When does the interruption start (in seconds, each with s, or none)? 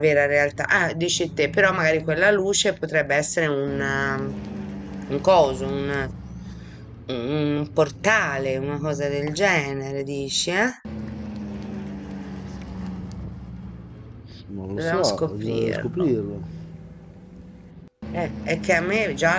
14.8 s